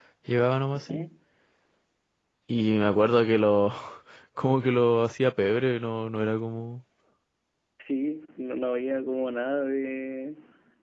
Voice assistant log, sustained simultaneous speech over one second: none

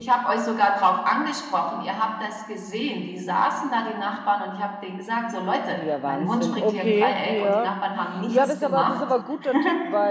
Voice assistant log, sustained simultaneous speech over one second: present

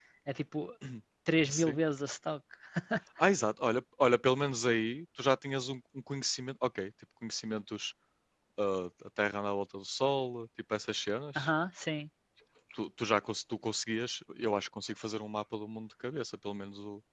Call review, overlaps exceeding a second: none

